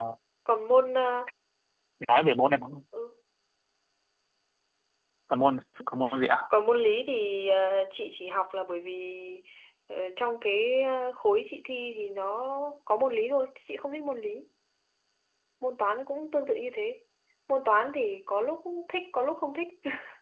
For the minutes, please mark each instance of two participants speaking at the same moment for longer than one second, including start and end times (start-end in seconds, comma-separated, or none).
none